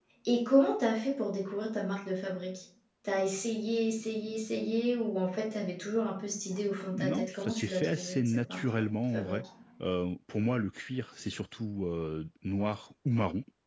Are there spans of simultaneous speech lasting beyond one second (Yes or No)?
Yes